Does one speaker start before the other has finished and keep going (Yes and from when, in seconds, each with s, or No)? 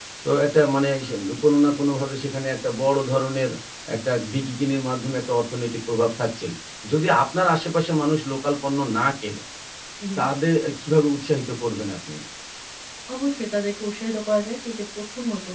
No